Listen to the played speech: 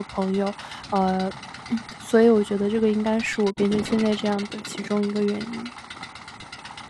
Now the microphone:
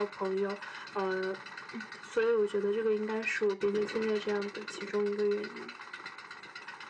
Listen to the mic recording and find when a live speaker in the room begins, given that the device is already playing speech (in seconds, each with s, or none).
none